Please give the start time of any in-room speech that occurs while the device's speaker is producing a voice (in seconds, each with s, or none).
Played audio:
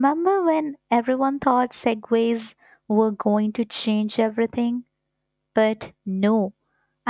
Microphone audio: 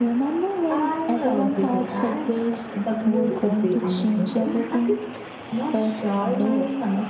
0.7 s